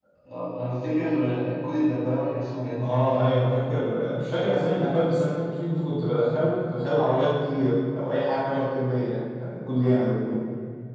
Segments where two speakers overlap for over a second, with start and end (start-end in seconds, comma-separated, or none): none